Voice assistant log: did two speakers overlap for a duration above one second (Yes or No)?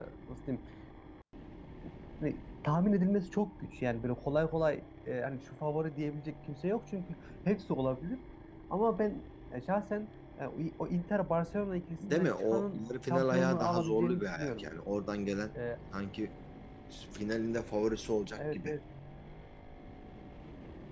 Yes